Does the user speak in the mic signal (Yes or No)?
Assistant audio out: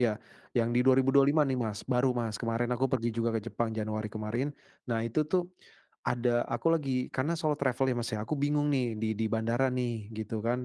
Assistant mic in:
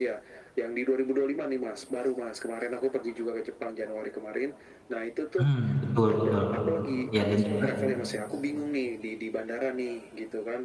Yes